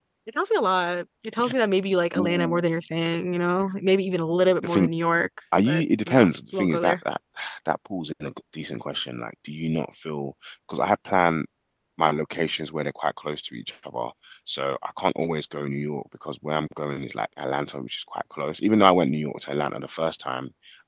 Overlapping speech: Yes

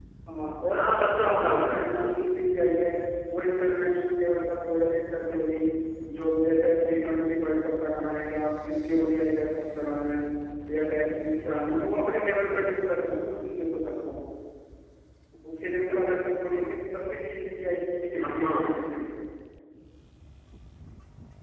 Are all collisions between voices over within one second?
No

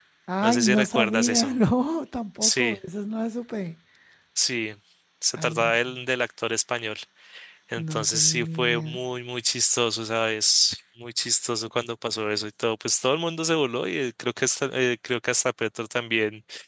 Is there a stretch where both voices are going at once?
Yes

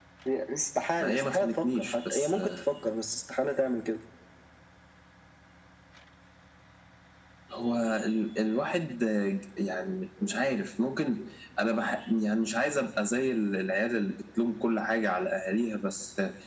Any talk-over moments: Yes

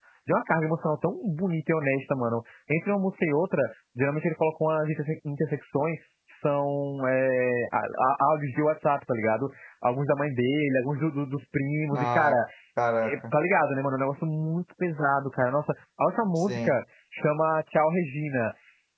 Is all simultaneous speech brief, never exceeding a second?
Yes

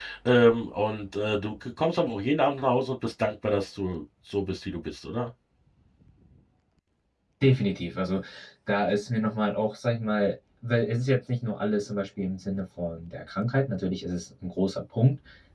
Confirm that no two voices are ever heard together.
Yes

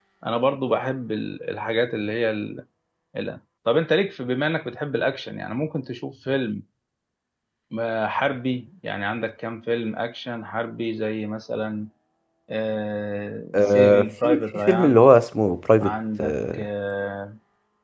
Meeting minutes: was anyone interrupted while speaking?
Yes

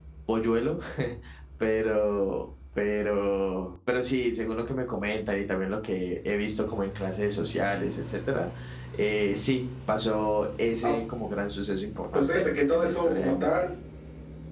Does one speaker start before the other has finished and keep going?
Yes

